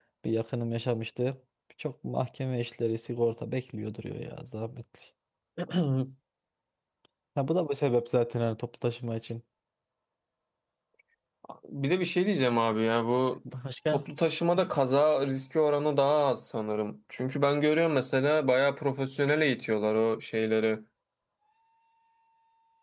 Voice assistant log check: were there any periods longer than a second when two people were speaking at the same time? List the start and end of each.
none

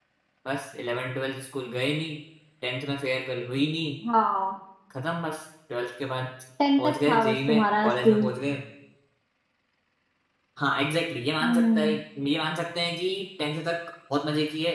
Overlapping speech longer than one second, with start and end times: 6.8-8.3

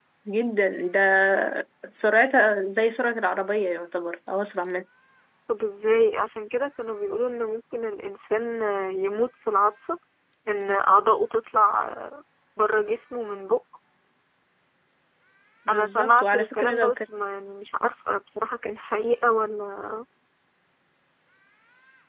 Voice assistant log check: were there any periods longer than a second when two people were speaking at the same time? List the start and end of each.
15.7-17.0

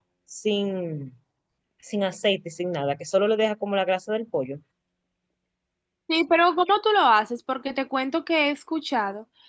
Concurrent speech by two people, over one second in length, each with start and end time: none

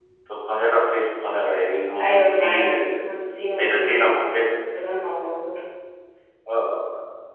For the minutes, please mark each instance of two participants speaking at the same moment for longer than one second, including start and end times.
2.0-4.5

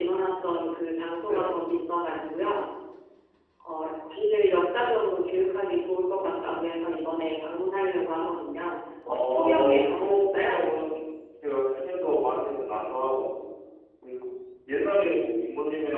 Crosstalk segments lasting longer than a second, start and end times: 9.1-10.6

